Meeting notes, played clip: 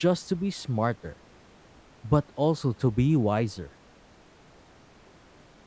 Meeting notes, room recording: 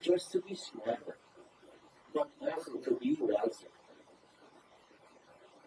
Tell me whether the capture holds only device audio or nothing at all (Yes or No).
Yes